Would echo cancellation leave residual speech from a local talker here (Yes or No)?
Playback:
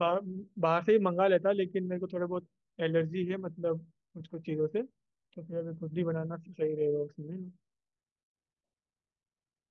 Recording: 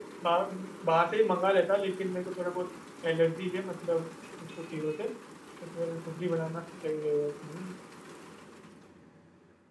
No